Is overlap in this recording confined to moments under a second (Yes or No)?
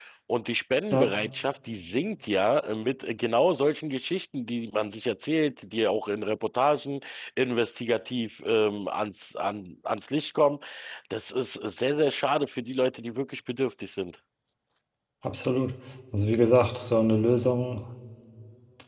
Yes